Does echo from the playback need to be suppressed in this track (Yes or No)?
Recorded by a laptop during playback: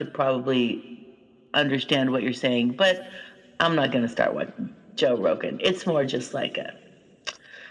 Yes